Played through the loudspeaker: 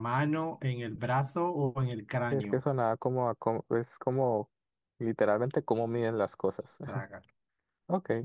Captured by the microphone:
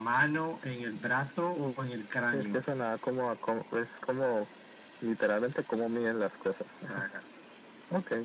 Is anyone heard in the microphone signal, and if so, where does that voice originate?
echo only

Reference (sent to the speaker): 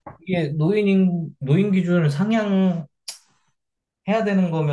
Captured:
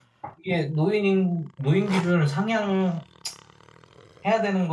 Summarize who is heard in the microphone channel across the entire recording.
echo only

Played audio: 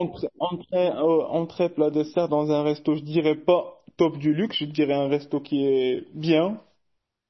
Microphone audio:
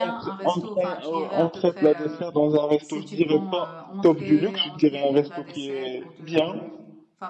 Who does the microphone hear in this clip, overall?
both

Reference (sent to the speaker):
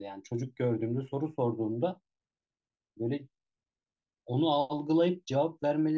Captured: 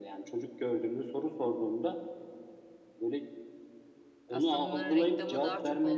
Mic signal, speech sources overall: both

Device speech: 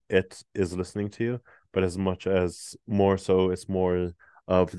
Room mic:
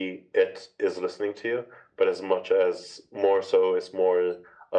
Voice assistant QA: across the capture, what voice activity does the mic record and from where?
echo only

